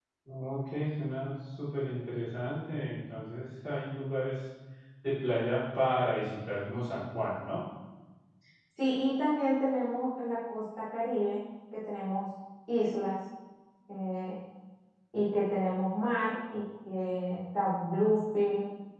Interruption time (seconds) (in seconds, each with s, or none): none